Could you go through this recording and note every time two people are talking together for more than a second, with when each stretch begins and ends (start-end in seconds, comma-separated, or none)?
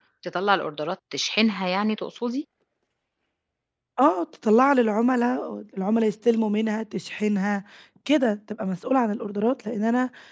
none